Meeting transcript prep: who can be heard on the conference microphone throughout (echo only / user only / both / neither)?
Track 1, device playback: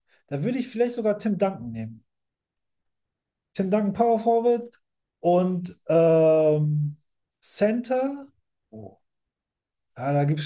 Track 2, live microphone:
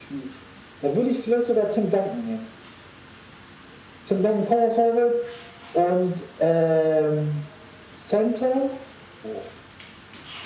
echo only